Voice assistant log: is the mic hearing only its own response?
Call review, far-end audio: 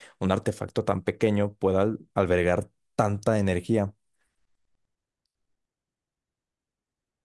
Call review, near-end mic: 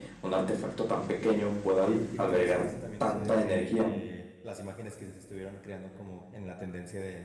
No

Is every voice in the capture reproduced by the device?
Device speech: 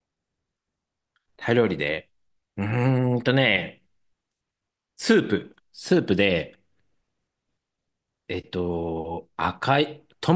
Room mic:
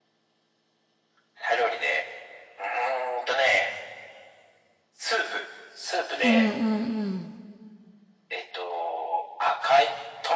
No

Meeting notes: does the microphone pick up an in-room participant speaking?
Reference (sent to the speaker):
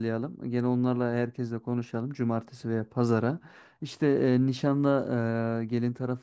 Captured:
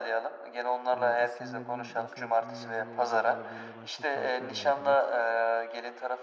Yes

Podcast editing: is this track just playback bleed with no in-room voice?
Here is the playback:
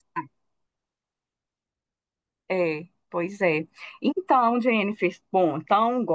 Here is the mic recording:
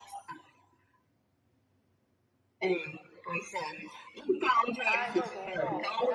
No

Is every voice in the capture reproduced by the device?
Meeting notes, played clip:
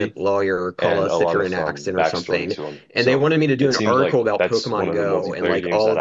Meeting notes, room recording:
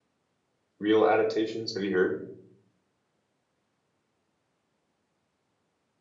No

